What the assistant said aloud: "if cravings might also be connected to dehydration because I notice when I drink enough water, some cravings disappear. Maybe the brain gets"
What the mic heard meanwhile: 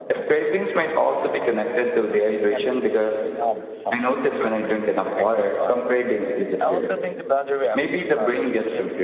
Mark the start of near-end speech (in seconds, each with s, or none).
2.4 s